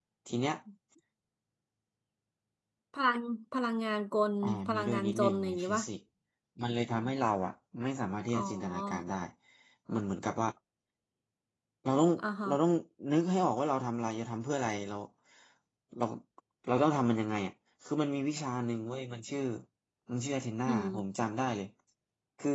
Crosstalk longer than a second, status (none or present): present